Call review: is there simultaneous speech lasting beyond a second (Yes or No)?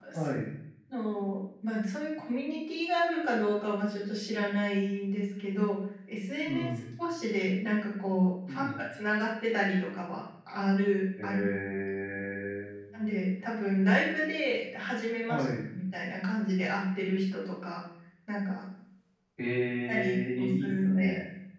Yes